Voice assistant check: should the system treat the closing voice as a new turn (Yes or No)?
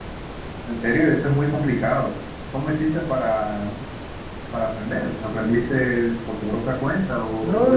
Yes